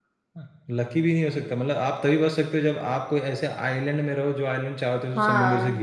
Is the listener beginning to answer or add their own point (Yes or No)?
Yes